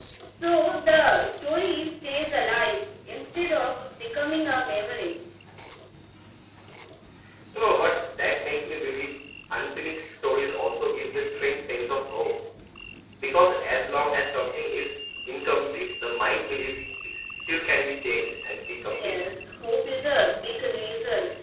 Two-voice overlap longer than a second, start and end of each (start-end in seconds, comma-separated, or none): none